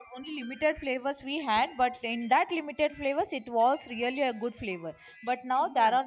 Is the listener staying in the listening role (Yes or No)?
Yes